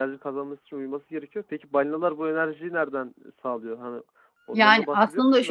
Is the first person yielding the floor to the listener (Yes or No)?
Yes